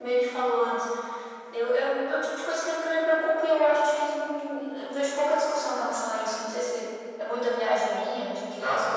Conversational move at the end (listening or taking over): listening